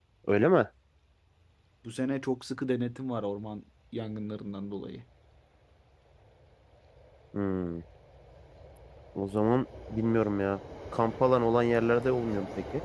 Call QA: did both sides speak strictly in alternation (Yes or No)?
Yes